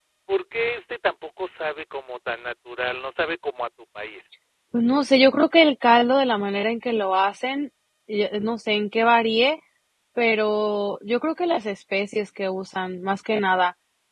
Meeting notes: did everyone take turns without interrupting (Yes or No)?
Yes